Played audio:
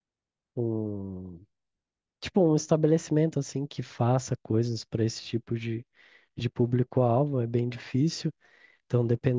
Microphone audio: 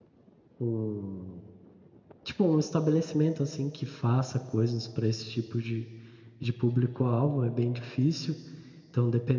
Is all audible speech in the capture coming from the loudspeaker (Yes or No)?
Yes